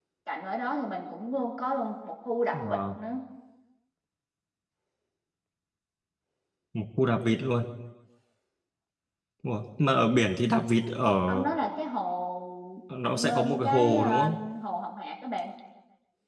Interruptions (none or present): present